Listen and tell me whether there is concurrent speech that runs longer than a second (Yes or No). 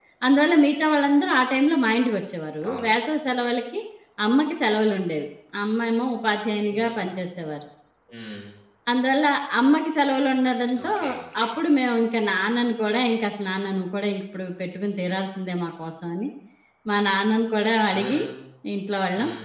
No